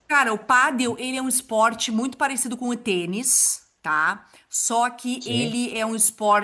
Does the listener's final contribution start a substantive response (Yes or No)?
No